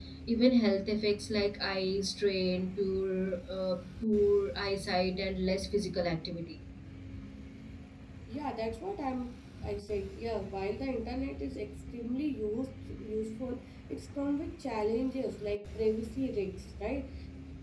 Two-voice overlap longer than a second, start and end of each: none

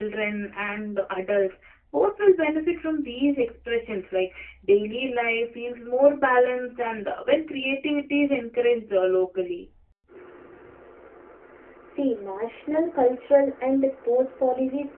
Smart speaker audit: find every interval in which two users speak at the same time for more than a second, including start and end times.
none

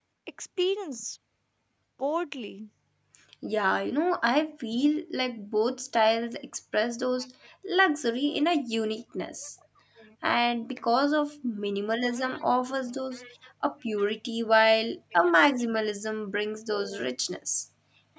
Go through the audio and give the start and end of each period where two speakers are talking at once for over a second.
none

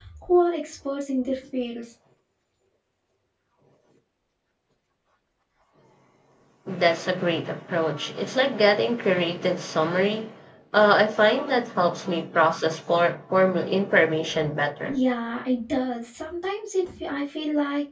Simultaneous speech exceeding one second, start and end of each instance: none

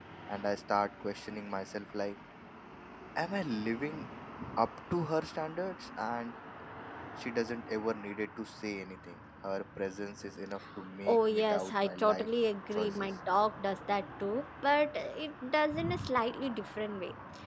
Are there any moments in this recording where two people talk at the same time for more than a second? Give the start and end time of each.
11.1-12.3

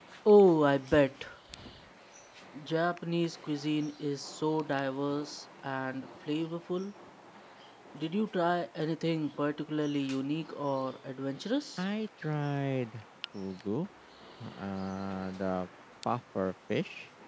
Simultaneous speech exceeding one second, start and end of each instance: none

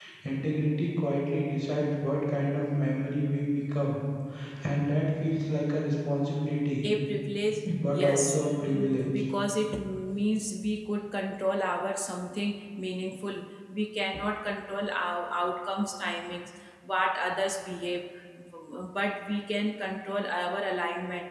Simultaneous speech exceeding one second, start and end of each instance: 7.6-9.1

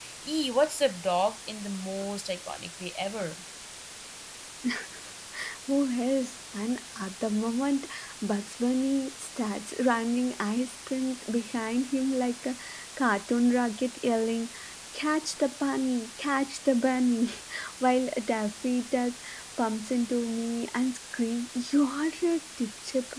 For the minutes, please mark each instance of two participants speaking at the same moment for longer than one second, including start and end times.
none

